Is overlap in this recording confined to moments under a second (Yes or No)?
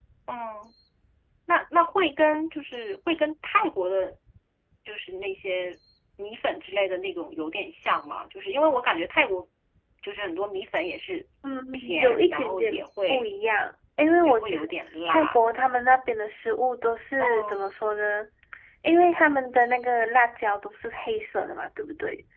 No